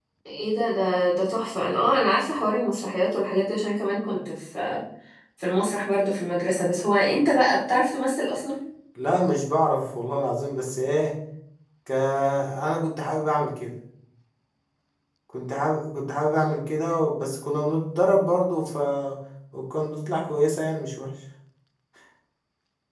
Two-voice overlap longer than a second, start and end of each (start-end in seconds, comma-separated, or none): none